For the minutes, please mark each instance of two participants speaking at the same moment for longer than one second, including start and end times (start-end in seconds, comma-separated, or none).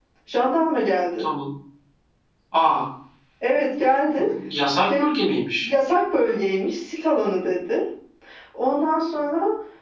none